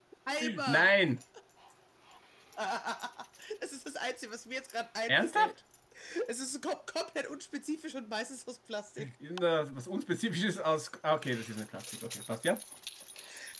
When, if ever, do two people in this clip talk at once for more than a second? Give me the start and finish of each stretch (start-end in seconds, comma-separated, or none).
none